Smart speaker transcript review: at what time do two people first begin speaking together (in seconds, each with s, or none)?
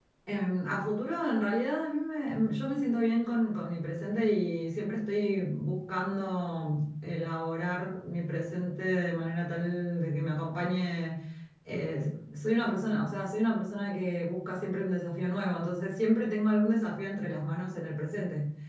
none